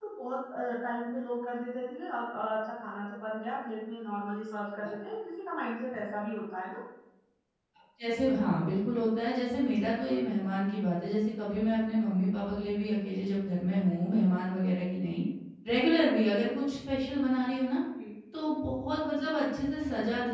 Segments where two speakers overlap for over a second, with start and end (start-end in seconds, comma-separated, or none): none